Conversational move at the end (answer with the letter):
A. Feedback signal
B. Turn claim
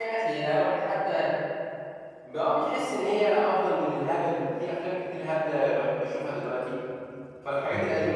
A